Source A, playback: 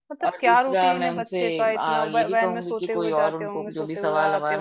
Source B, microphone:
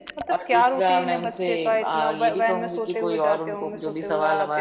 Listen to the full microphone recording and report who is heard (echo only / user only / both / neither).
echo only